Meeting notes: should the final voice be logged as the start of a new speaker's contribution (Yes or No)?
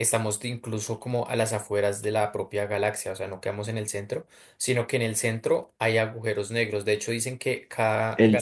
Yes